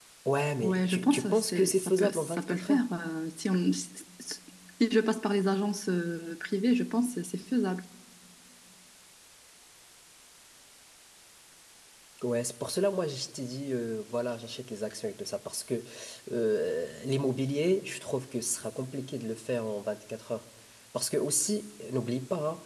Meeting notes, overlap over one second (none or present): present